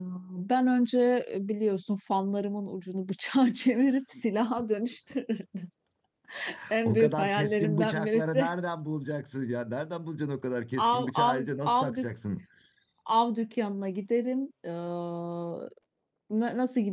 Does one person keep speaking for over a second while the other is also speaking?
Yes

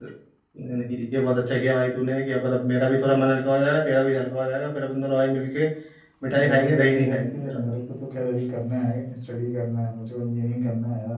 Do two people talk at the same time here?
Yes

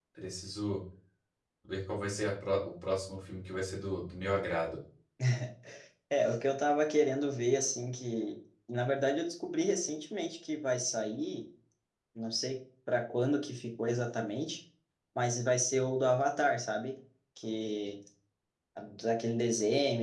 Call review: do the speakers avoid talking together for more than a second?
Yes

